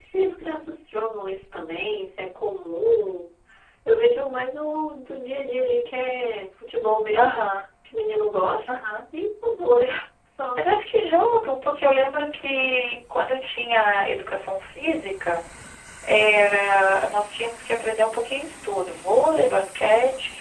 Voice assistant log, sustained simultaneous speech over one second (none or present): none